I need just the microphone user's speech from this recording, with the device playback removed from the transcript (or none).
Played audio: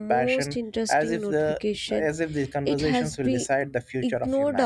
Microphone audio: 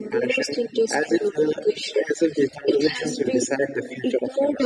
none